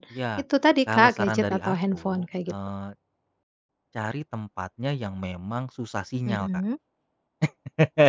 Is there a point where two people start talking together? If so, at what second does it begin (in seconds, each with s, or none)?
0.9 s